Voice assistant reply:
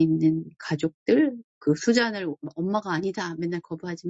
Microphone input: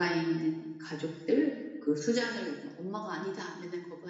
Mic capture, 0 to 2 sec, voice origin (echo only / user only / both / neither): echo only